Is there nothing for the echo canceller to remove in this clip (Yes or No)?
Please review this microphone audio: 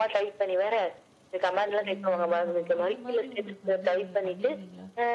No